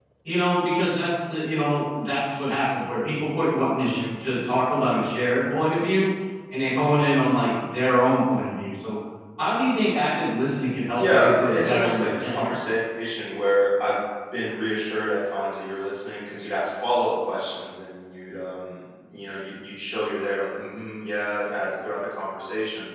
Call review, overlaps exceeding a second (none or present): present